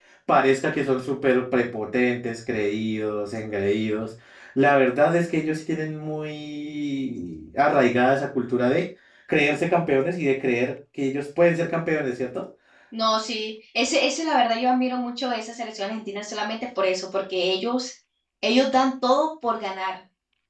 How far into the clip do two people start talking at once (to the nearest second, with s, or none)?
none